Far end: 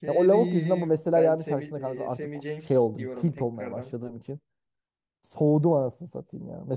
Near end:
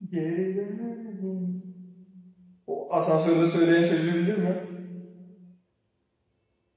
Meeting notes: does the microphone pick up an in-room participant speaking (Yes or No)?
Yes